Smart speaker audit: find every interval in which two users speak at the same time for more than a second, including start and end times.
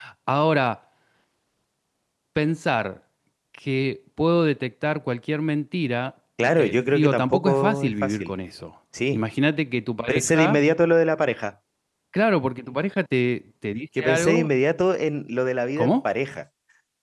6.6-8.3

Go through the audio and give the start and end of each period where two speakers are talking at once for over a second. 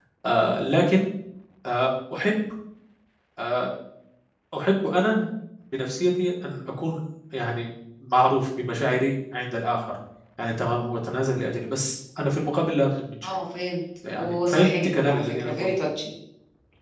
14.2-15.7

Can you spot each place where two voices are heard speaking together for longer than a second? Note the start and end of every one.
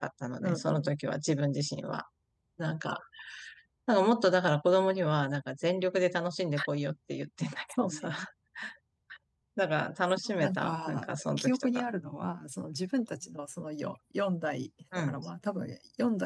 10.4-11.8

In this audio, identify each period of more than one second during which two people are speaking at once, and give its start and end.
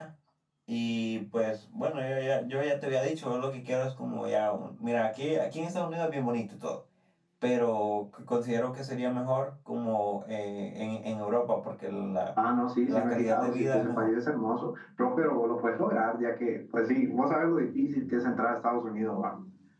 12.9-14.1

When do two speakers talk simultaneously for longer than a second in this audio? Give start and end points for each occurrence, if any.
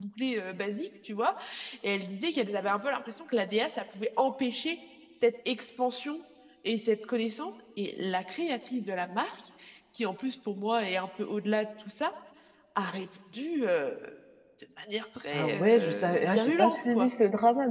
15.3-17.1

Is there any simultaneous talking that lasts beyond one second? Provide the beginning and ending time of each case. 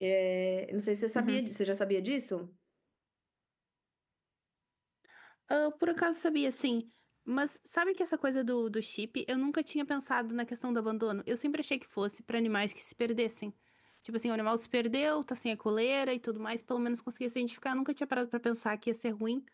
none

